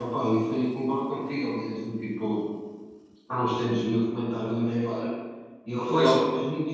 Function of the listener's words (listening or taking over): listening